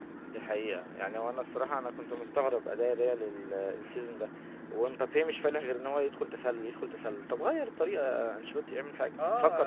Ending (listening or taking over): taking over